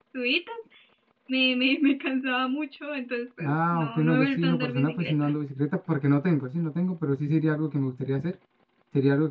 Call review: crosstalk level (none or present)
present